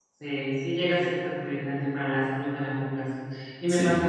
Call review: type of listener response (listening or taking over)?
listening